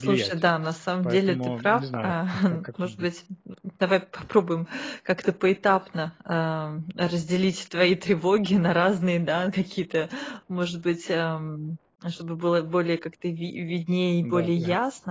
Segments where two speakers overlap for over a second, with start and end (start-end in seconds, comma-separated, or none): 1.0-3.1